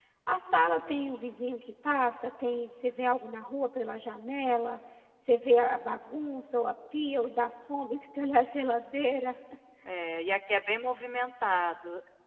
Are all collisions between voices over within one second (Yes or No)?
Yes